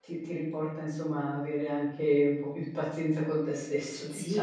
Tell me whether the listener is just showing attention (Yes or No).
No